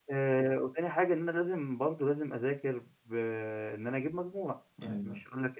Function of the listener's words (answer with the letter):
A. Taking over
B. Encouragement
B